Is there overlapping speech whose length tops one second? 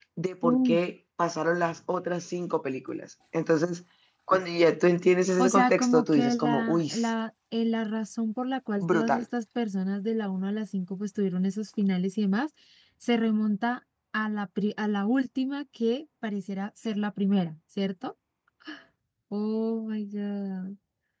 Yes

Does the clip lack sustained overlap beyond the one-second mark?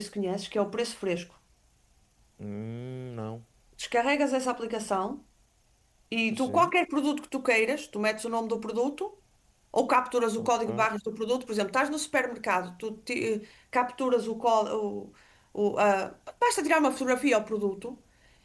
Yes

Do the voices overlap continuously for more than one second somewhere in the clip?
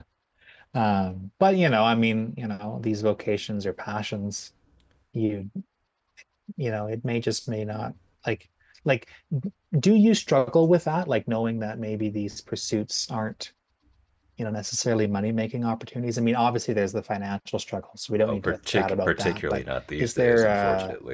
Yes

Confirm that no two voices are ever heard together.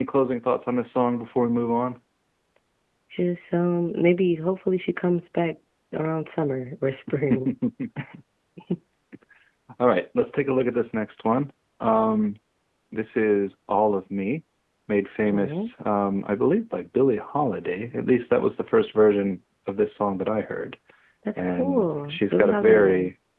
No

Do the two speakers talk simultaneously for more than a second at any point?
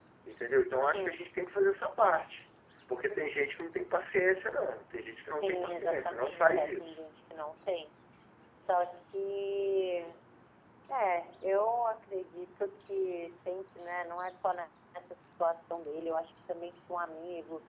Yes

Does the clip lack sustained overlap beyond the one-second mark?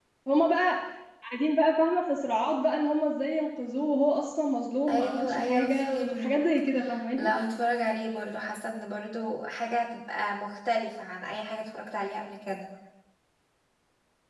No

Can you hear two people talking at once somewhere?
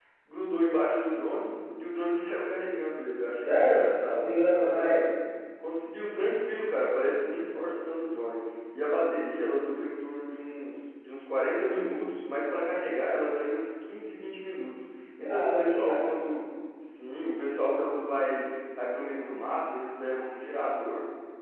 Yes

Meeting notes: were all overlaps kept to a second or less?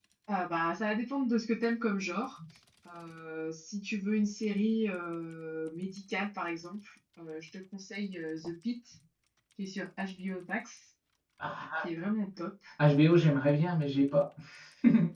Yes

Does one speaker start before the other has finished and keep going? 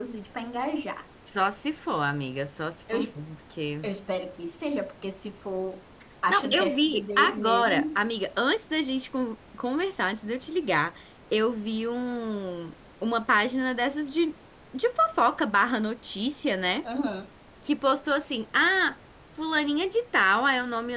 Yes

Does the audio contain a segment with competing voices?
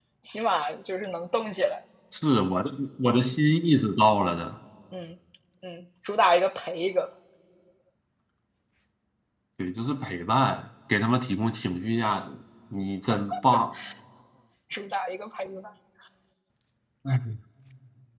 No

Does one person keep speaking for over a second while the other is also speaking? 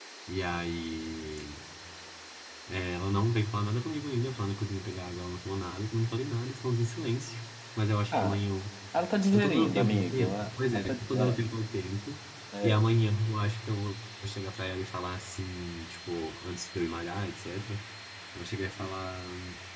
Yes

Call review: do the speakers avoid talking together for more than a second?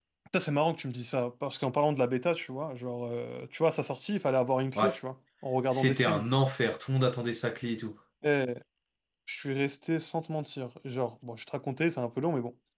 Yes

